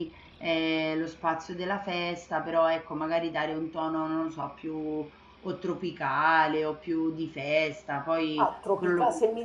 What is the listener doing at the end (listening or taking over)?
taking over